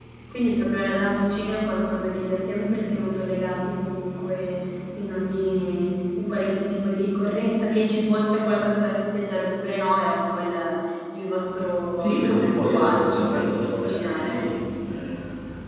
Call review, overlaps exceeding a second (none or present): present